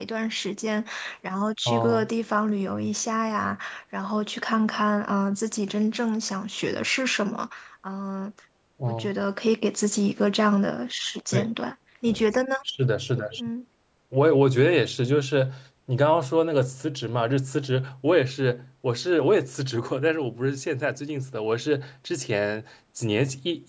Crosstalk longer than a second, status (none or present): none